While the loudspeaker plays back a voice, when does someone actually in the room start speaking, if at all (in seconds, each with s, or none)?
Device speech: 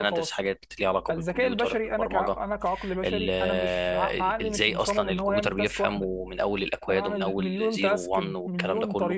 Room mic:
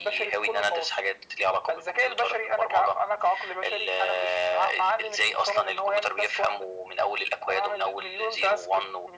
none